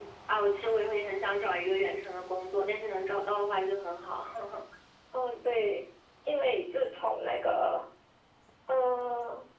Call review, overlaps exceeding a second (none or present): none